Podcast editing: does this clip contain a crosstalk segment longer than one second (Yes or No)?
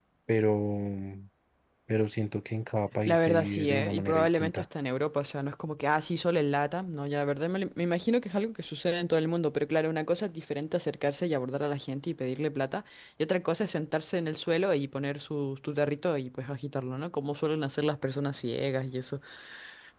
Yes